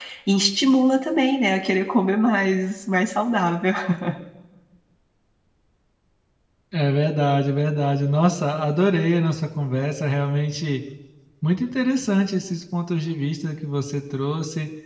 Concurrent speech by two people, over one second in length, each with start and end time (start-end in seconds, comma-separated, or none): none